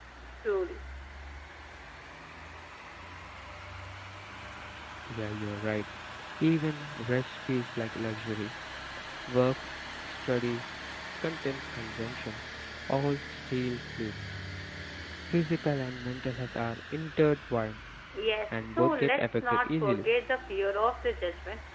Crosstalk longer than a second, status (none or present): present